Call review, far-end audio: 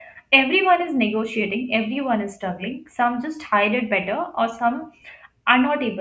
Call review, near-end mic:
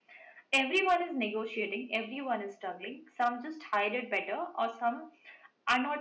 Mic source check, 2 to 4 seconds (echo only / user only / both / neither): echo only